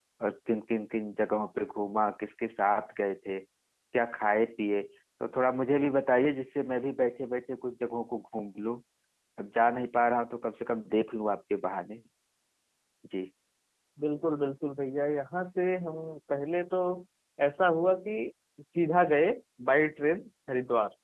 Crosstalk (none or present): none